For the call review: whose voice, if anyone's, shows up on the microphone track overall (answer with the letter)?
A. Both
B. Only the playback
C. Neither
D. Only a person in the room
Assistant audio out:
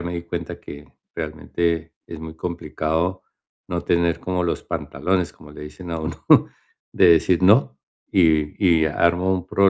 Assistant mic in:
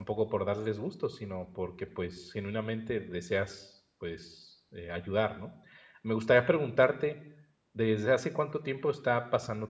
D